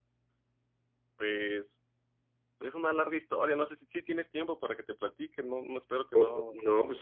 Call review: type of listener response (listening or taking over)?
taking over